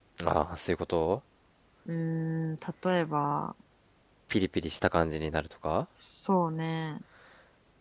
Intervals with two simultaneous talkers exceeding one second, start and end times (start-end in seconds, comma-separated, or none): none